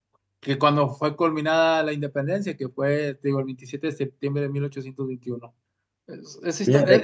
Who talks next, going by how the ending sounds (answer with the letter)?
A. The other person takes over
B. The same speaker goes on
B